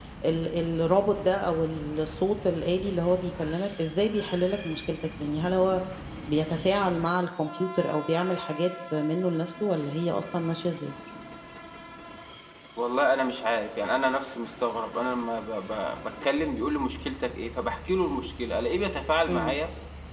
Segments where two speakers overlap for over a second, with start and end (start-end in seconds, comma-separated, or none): none